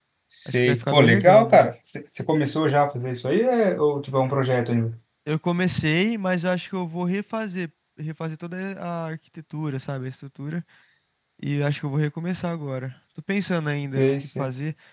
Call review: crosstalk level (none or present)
present